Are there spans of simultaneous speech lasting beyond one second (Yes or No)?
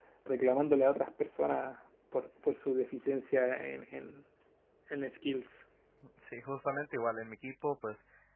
No